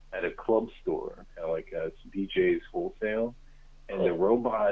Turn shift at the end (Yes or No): No